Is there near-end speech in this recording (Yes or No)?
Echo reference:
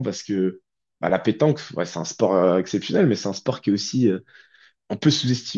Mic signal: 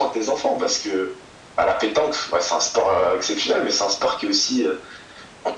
No